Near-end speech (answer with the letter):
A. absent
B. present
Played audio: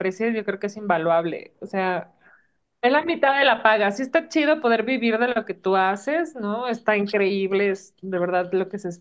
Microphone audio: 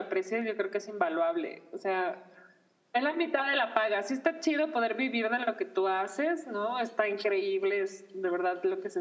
A